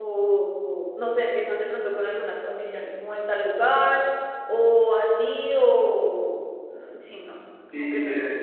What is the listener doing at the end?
taking over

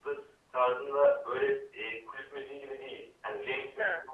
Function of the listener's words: listening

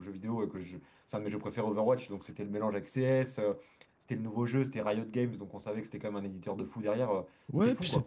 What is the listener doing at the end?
taking over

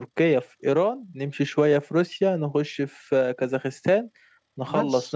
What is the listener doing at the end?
taking over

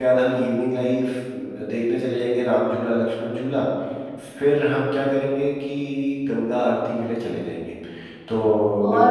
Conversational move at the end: taking over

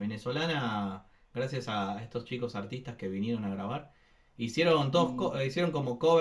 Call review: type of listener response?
listening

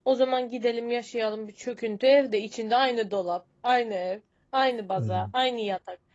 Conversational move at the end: listening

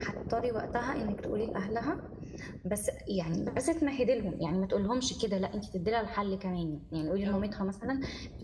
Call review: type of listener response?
listening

